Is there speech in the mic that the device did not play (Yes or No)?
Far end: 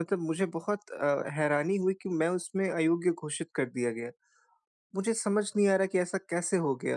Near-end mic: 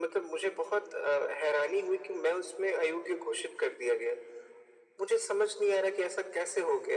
No